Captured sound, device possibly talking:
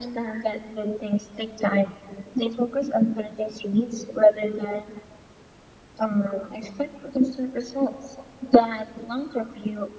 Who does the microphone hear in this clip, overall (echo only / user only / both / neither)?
echo only